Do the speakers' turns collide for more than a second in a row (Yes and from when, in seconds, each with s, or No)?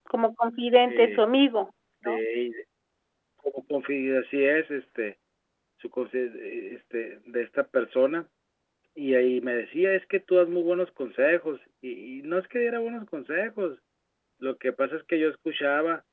No